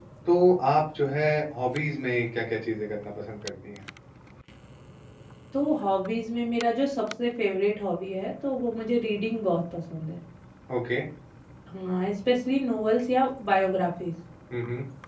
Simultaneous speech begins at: none

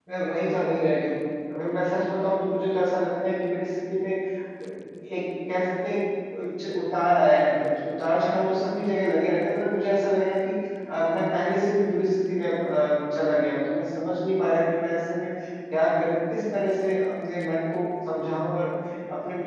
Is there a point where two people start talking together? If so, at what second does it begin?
none

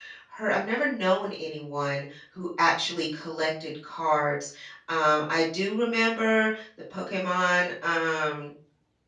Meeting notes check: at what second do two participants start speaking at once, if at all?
none

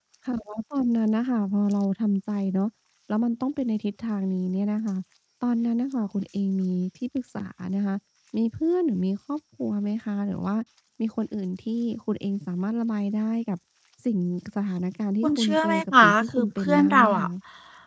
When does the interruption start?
15 s

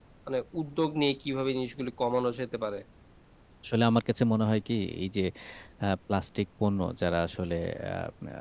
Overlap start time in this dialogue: none

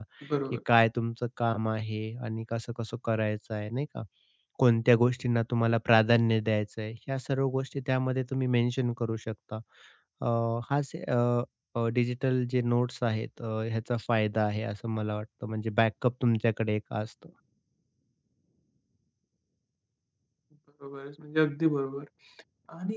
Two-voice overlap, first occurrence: none

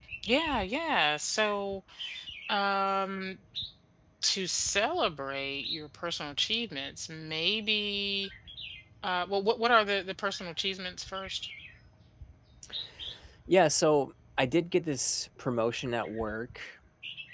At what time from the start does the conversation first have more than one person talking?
none

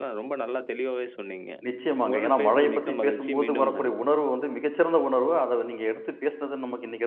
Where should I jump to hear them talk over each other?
2 s

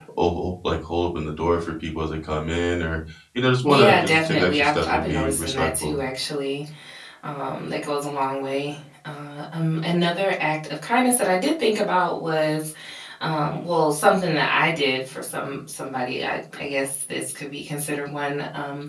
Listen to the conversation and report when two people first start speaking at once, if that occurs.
4 s

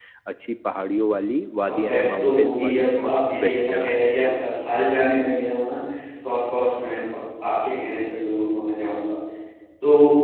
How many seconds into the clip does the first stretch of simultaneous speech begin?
2 s

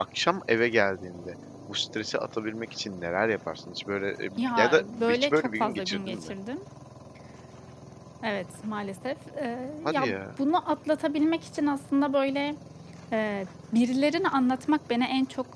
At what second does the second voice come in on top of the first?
4 s

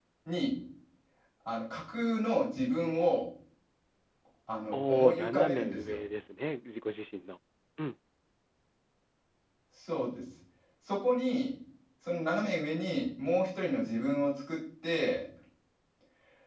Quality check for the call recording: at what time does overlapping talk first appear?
5 s

